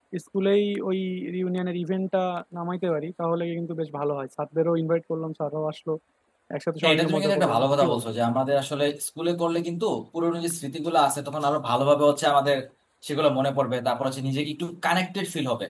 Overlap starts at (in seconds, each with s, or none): 6.8 s